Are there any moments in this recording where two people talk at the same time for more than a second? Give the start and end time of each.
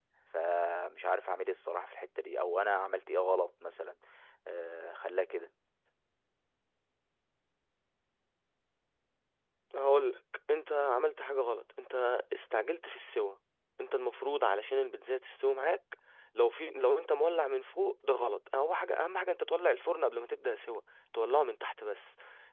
none

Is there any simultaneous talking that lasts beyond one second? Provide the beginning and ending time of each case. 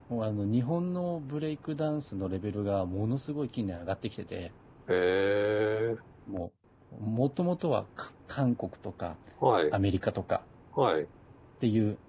none

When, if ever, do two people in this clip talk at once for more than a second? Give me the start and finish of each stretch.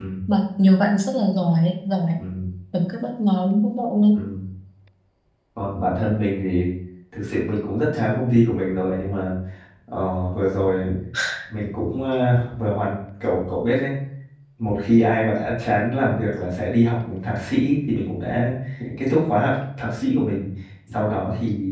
none

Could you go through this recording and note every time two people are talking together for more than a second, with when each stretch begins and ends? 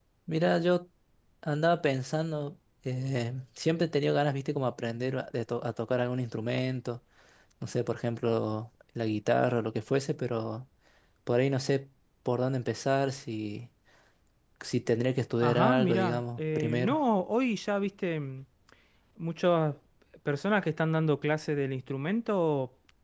15.4-17.0

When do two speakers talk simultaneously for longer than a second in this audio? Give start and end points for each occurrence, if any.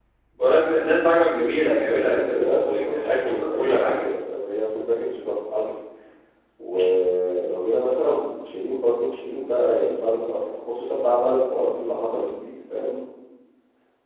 1.8-4.0

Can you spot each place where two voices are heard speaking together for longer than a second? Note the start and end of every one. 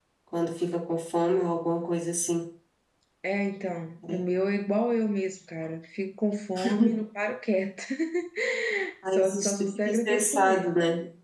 9.1-10.6

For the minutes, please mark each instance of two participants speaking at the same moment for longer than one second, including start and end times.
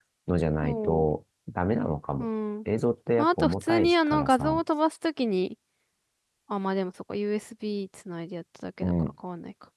3.2-4.6

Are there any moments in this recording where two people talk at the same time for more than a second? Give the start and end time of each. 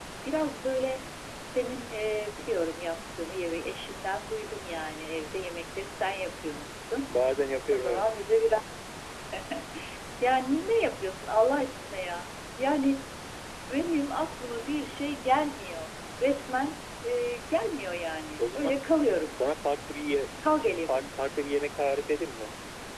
none

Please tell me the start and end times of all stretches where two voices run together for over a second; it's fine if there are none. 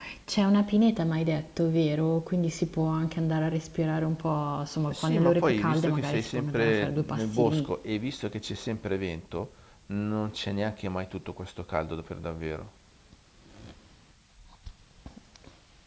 4.9-7.7

